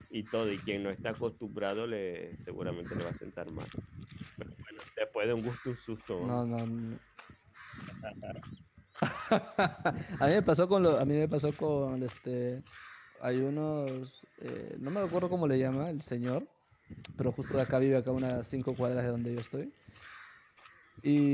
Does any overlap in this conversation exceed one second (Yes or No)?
No